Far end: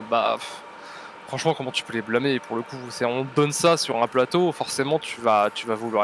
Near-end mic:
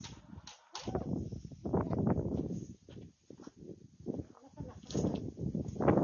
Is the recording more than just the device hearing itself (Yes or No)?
No